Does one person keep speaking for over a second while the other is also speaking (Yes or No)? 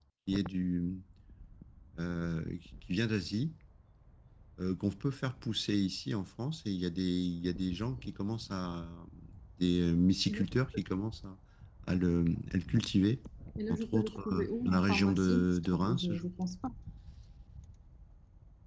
Yes